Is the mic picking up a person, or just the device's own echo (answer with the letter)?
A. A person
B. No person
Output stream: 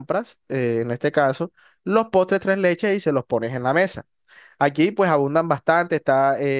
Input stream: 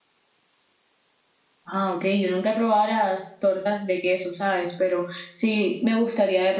A